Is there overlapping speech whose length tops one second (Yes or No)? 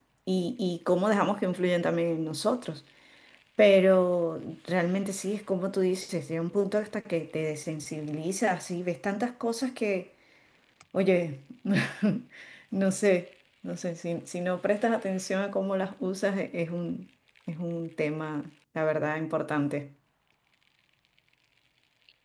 No